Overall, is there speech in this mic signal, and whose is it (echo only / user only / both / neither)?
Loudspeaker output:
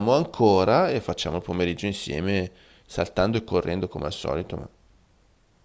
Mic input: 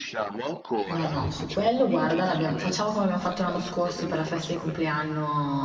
both